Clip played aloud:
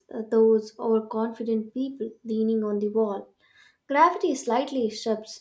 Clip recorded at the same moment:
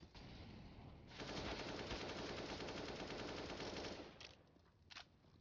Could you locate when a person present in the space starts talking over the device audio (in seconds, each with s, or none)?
none